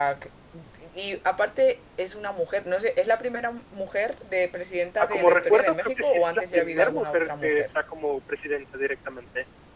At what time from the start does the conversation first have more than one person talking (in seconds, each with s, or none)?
5.0 s